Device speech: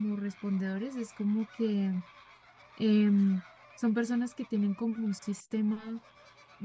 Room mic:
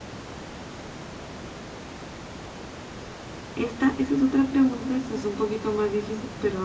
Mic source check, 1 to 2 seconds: neither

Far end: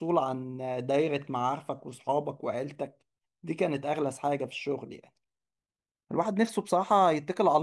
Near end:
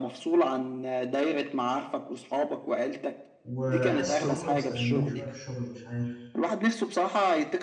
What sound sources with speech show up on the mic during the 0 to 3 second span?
echo only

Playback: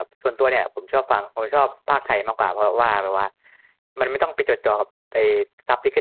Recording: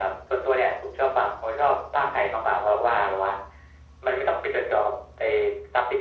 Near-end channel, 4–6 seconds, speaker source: echo only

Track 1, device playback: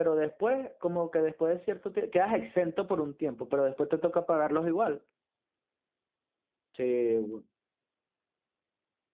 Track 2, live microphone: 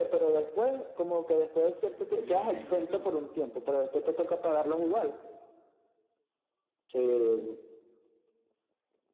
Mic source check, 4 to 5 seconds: echo only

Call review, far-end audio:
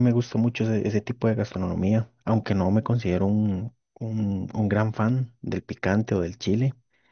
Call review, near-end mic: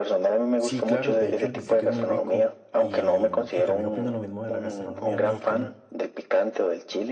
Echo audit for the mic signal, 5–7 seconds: both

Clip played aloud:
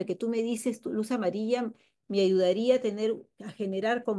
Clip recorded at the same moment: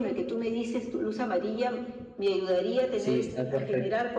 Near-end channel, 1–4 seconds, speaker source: both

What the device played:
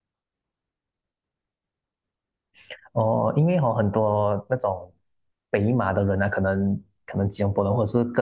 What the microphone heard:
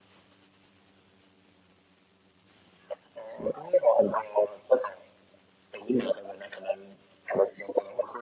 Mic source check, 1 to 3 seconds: neither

